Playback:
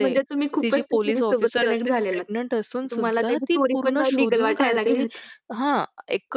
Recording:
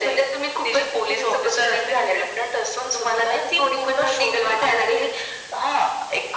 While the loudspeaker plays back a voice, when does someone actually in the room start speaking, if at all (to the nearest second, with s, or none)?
none